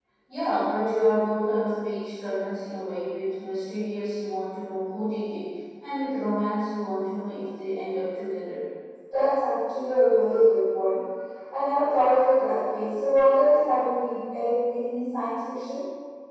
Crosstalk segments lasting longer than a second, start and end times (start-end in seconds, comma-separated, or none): none